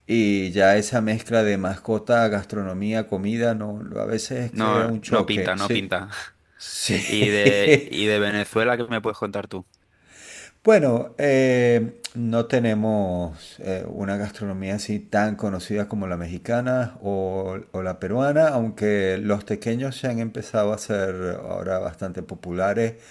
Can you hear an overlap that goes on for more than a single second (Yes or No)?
Yes